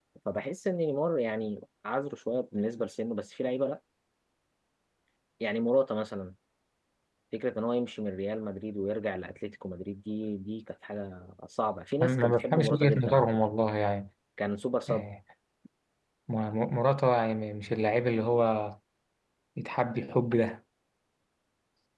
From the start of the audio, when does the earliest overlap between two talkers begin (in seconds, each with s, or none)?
12.0 s